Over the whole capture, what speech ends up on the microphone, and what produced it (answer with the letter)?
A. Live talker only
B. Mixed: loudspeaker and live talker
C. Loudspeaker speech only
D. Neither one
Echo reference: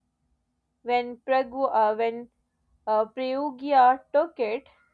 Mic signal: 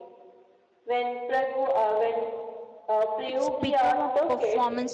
B